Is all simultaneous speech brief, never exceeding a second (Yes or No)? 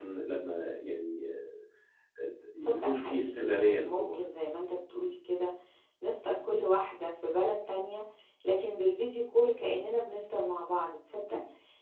No